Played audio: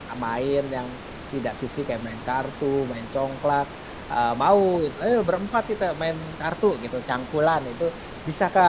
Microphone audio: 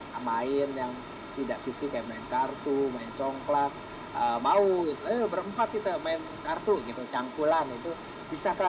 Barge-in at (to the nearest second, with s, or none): none